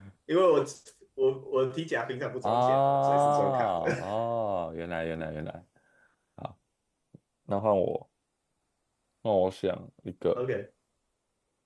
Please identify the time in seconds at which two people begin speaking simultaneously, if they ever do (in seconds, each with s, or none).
2.4 s